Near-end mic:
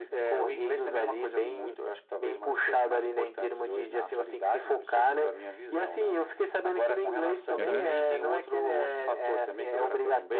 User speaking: Yes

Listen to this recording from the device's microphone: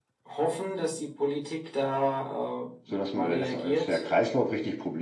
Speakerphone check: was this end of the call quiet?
No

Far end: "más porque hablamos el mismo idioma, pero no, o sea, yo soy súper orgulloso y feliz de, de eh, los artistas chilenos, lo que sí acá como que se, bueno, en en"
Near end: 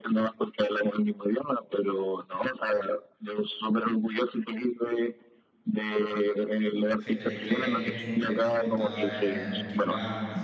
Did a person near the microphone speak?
Yes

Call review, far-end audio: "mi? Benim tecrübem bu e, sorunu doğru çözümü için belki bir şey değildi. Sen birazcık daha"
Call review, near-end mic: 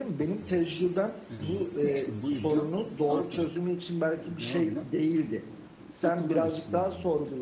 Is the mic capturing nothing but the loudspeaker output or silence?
No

